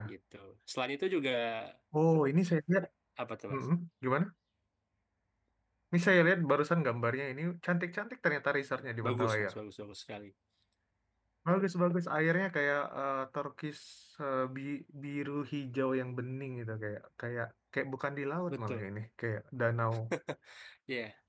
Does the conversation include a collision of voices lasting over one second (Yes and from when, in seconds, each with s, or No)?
No